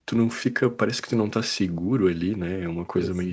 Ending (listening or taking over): listening